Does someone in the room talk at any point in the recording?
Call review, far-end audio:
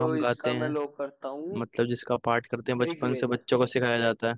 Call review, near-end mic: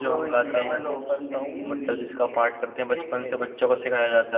Yes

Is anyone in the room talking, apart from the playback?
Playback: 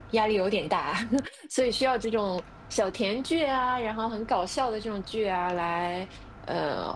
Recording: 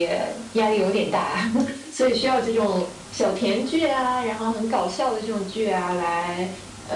No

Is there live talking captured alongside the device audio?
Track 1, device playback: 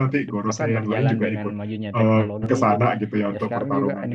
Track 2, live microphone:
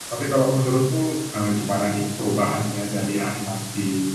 Yes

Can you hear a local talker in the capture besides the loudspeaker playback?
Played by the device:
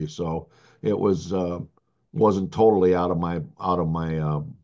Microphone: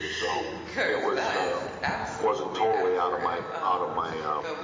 Yes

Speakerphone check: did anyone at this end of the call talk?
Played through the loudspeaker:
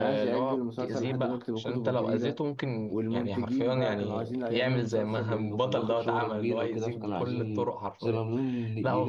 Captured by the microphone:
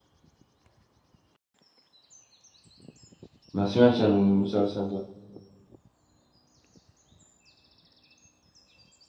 Yes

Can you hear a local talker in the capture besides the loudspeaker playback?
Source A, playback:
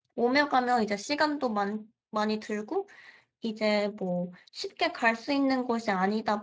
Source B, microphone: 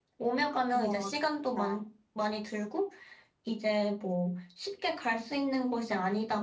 Yes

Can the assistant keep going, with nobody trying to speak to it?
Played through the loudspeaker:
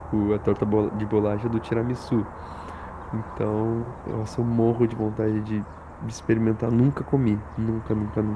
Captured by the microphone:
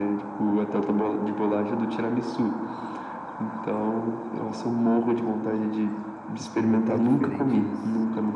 No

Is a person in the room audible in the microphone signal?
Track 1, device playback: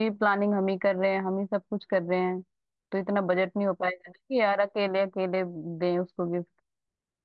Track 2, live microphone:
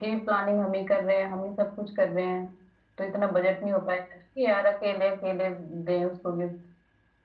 No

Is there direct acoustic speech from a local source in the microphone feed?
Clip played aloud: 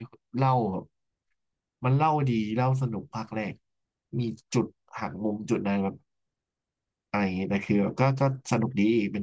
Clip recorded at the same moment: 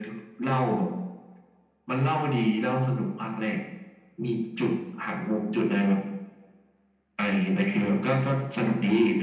No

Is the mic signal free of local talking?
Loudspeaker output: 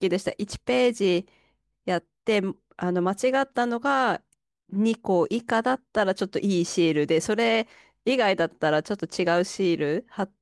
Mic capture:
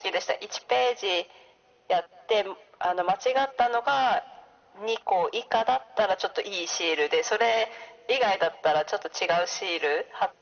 Yes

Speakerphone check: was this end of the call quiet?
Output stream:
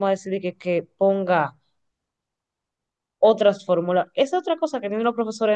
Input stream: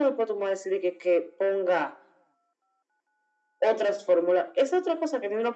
Yes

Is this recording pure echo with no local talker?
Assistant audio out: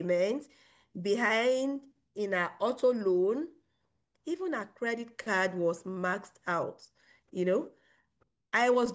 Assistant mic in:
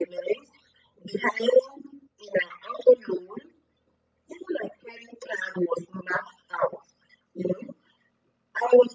Yes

